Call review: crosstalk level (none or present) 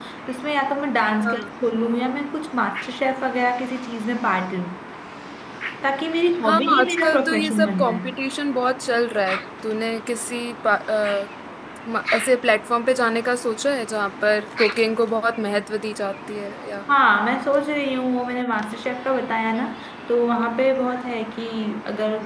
present